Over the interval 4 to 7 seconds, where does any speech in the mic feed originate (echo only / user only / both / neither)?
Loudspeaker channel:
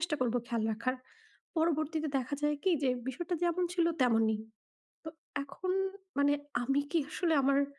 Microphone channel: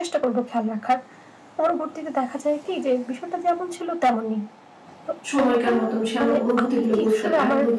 both